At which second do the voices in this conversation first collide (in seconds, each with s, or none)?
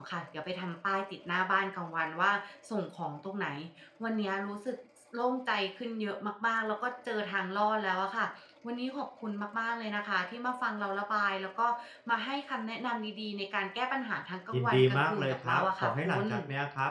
14.5 s